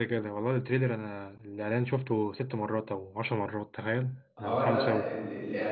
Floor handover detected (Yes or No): Yes